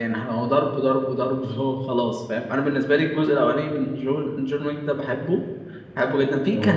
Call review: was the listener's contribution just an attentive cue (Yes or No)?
Yes